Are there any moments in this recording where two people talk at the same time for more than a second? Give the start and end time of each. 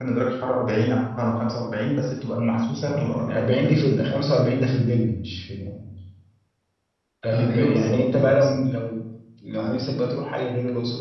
2.9-4.1, 7.3-8.6

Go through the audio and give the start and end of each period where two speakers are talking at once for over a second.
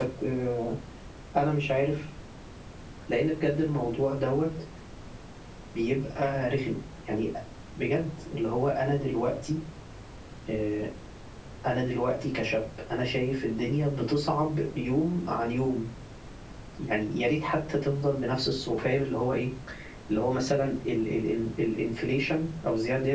none

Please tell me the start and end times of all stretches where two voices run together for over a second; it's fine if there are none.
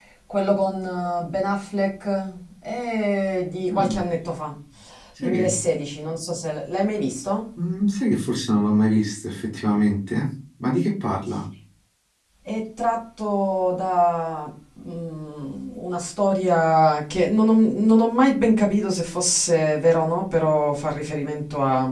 none

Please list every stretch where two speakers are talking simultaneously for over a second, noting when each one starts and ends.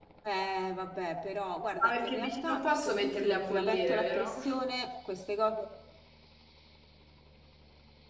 1.8-4.3

